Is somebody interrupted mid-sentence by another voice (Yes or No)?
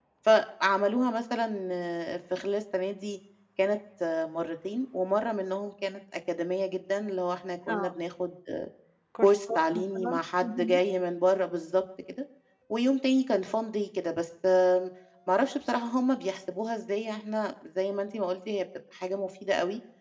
Yes